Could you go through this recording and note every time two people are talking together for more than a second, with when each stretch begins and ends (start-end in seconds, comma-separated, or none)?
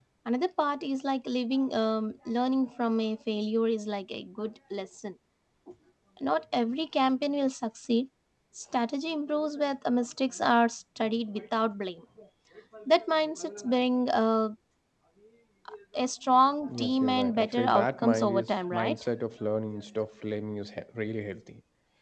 16.7-18.9